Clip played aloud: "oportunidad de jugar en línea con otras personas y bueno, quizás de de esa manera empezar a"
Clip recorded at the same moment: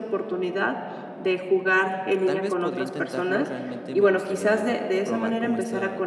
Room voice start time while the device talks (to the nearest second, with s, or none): 2 s